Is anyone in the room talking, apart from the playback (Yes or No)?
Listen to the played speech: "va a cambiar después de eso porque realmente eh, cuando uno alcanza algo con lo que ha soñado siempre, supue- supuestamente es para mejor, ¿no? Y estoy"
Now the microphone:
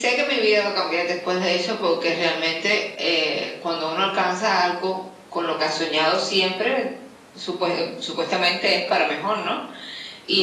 No